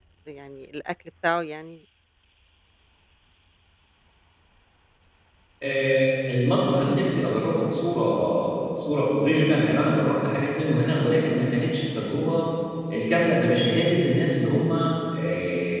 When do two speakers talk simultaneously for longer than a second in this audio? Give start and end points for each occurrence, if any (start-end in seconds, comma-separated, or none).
none